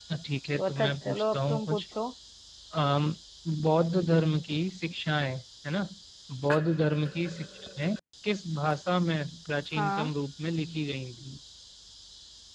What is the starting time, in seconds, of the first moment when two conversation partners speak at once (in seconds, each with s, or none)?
0.6 s